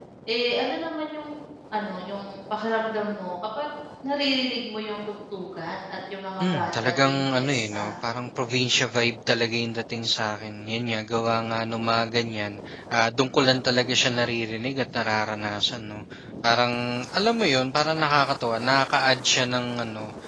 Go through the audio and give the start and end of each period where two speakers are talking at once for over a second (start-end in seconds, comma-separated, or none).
6.4-7.9